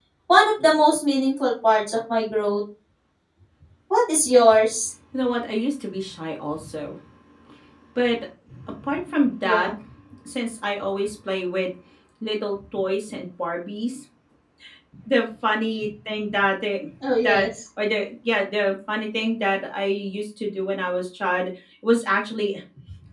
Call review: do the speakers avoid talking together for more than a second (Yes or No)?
Yes